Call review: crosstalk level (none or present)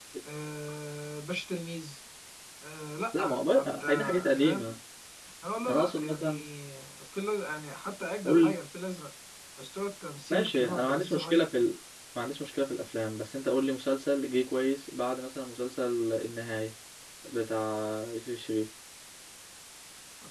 present